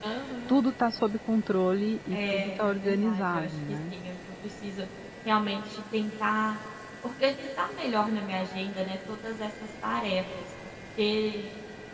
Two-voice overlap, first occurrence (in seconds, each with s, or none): 2.1 s